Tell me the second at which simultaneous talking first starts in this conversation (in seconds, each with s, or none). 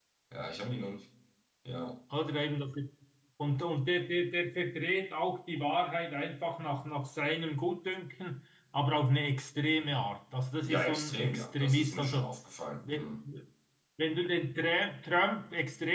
10.6 s